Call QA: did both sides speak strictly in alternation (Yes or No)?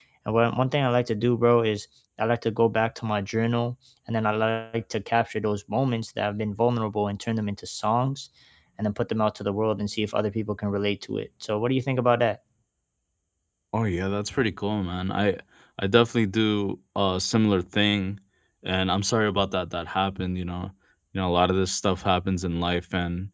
Yes